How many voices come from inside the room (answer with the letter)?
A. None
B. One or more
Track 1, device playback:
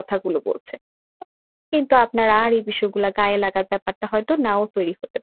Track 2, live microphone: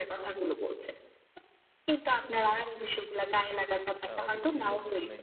B